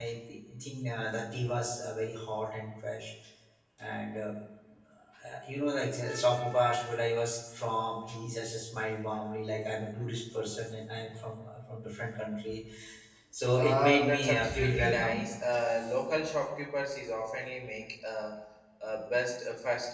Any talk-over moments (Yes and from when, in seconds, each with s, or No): Yes, from 13.5 s